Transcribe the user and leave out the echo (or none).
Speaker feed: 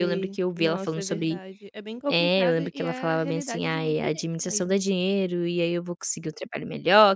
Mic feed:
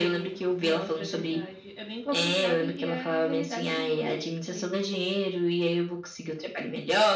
none